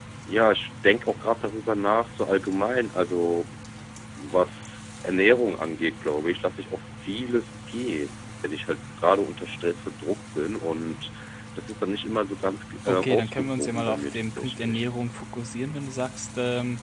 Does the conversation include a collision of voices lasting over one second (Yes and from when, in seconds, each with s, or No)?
Yes, from 12.9 s